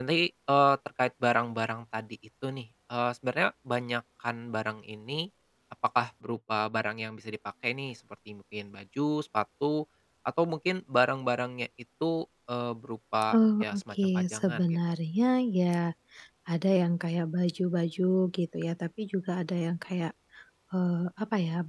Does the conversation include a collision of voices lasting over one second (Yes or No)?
Yes